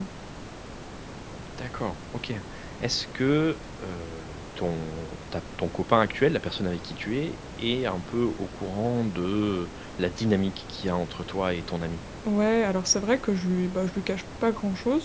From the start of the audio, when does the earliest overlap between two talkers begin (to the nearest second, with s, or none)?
none